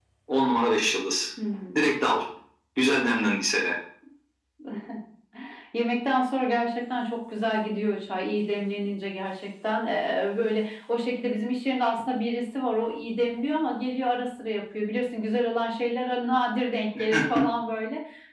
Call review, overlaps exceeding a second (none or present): none